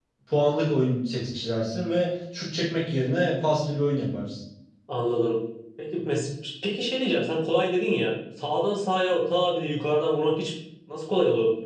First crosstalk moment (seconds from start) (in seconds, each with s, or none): none